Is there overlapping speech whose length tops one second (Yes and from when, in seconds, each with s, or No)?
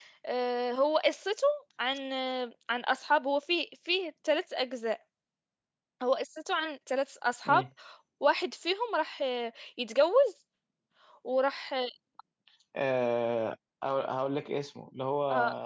No